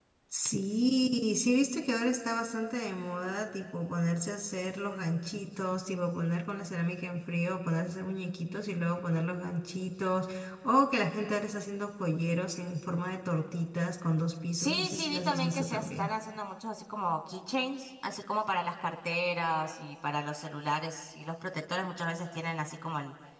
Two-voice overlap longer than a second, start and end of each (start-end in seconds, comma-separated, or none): 14.6-16.1